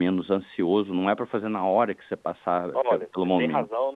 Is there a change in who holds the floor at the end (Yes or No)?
Yes